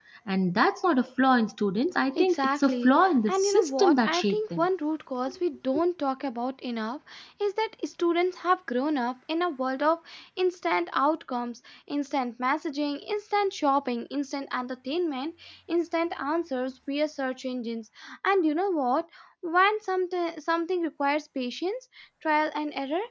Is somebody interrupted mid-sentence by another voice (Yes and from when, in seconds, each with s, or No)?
Yes, from 2.1 s